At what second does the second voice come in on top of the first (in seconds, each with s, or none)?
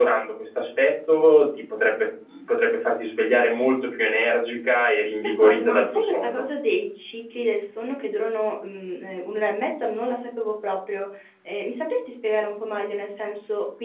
5.2 s